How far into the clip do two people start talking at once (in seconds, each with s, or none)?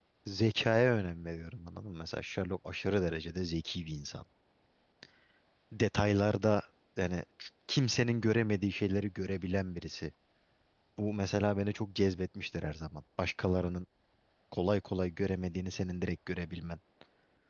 none